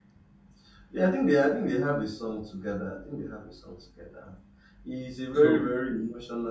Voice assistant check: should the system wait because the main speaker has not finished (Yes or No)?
Yes